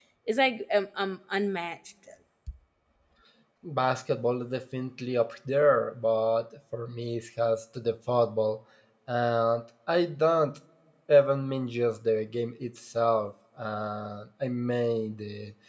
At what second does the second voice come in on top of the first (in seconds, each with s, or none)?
none